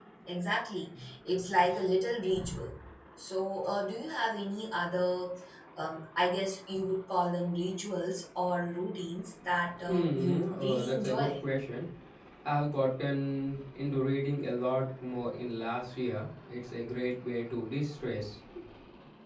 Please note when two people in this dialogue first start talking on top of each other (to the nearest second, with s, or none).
10 s